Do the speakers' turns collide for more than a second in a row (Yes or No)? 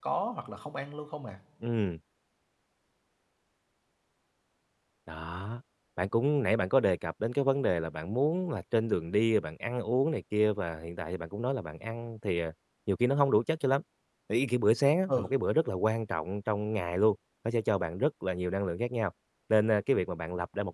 No